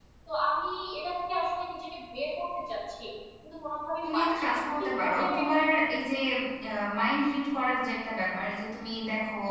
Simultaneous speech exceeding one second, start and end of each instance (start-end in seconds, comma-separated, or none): 4.1-5.8